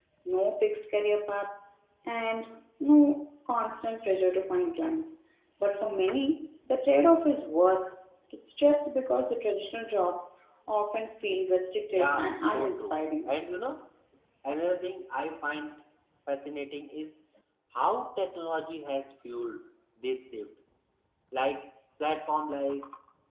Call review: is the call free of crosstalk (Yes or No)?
No